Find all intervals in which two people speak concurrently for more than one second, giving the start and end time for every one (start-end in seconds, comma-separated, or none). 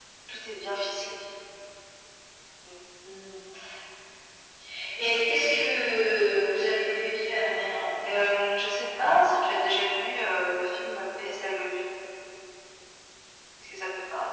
none